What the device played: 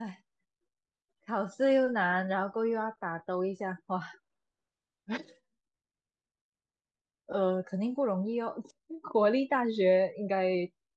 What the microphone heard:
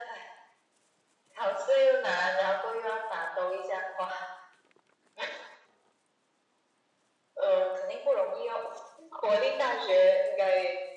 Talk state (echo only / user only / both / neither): echo only